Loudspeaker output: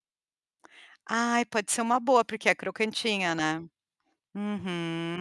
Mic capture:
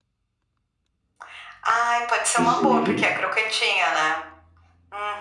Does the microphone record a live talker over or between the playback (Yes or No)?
Yes